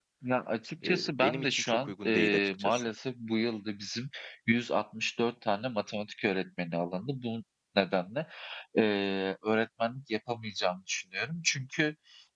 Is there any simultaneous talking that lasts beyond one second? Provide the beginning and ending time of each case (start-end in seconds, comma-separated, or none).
0.8-2.8